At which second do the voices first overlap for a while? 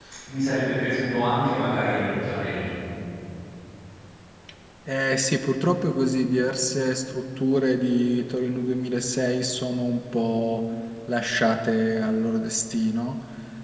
none

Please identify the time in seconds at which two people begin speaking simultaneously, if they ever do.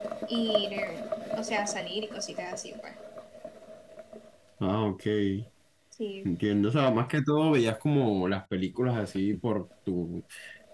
none

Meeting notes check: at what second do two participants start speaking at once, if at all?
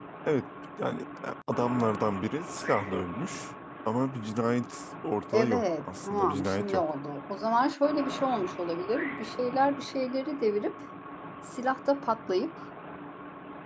5.3 s

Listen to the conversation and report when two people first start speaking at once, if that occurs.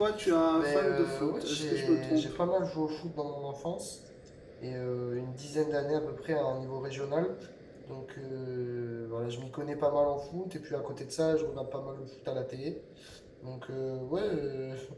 0.5 s

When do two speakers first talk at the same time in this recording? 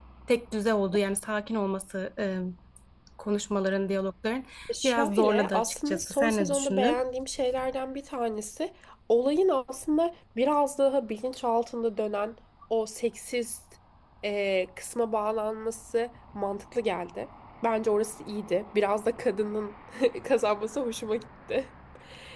4.8 s

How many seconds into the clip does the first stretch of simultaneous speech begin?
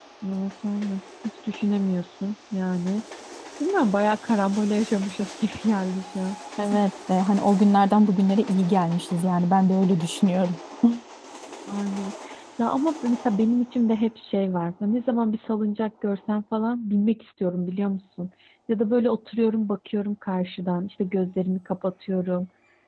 none

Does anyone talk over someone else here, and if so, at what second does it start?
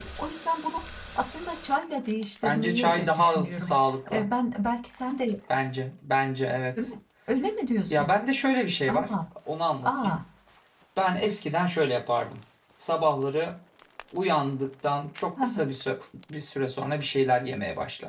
2.4 s

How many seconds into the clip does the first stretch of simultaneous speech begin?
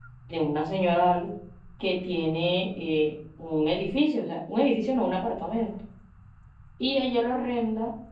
none

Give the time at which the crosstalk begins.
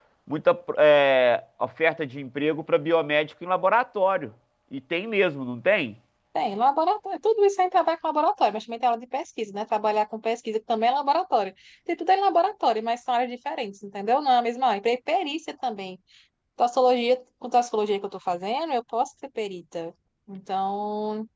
none

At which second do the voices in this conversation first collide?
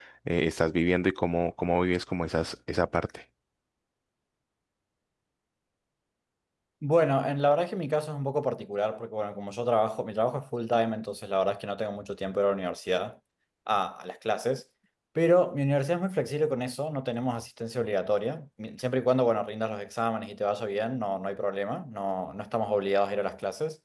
none

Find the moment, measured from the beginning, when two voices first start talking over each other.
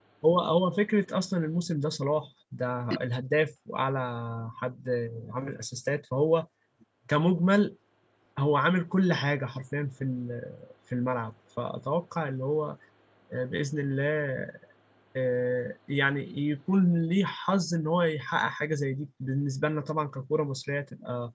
none

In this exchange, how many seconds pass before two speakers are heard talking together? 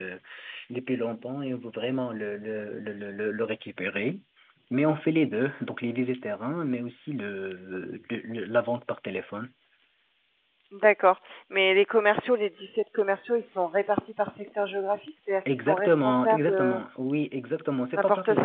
15.5 s

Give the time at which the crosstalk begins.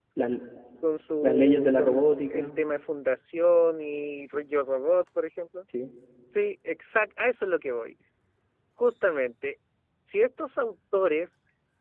1.2 s

